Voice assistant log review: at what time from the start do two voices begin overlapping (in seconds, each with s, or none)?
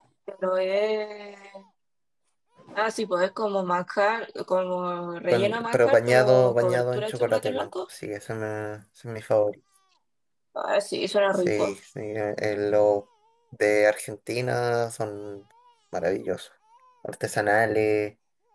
5.3 s